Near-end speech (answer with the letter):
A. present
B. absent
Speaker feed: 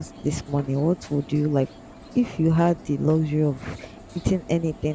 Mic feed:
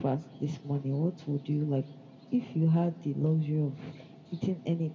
B